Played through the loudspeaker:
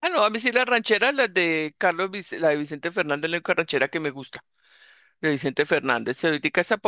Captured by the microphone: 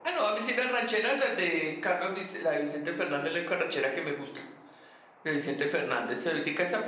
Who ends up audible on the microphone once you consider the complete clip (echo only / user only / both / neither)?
echo only